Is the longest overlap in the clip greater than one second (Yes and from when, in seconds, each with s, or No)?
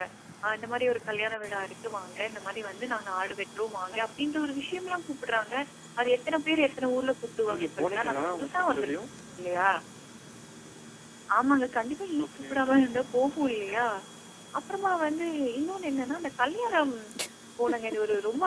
Yes, from 7.5 s